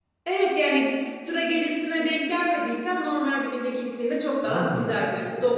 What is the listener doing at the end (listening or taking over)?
listening